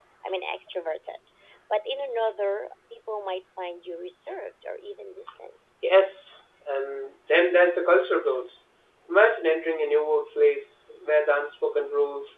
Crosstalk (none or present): none